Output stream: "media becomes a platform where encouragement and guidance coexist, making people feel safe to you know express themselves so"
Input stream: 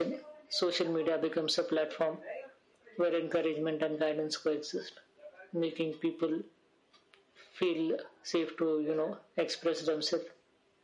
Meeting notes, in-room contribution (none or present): none